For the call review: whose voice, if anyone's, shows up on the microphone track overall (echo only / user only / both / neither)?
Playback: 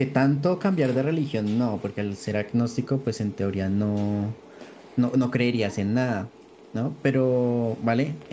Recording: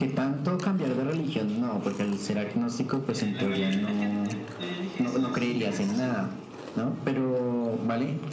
both